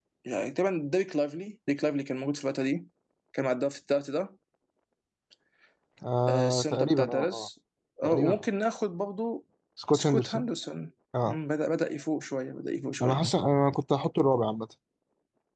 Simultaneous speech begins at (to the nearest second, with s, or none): 6 s